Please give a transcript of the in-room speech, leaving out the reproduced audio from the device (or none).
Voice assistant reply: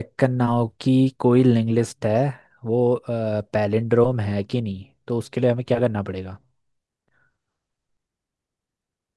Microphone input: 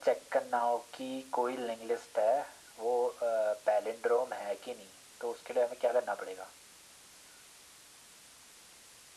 none